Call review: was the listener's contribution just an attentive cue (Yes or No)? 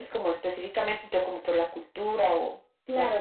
No